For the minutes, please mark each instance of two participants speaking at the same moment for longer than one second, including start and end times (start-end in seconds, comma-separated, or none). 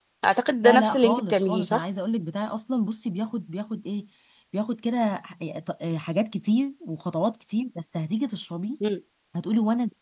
0.6-1.8